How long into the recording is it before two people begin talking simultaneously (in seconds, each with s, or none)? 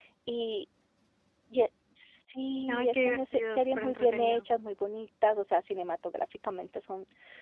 2.7 s